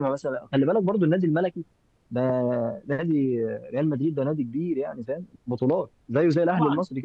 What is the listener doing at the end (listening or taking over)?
taking over